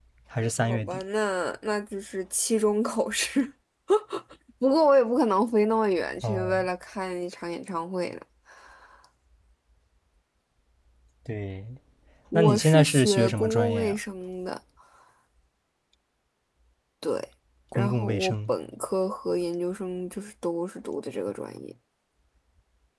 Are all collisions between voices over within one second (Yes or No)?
No